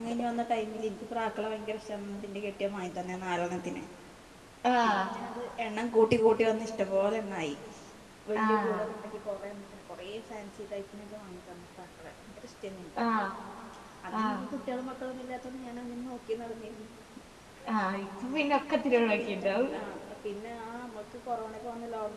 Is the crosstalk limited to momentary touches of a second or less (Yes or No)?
Yes